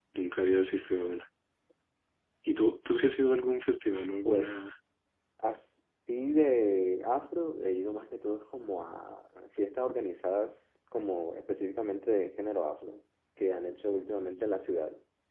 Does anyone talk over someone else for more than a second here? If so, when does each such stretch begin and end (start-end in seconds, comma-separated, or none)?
none